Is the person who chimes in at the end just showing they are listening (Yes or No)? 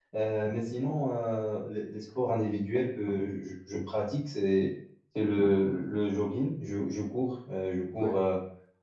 Yes